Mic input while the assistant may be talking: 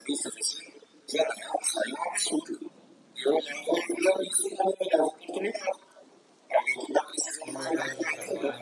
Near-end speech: present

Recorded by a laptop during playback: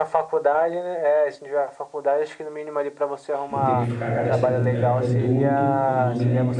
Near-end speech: present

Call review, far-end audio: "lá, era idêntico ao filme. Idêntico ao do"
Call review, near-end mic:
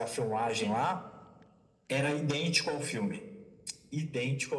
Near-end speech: present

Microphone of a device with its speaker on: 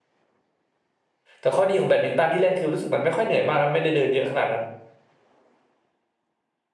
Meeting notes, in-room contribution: present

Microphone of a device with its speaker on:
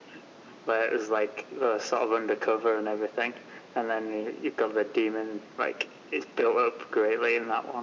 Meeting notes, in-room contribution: none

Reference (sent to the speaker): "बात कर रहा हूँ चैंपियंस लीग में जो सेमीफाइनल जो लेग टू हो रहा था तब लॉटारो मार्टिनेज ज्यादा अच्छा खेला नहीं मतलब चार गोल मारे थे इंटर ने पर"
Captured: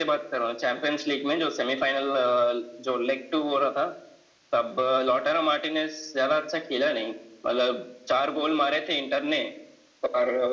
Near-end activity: none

